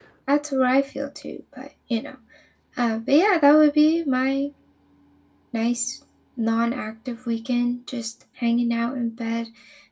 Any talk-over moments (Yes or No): No